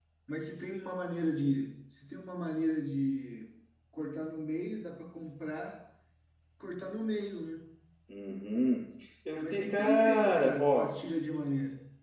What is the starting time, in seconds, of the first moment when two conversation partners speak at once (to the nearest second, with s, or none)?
9 s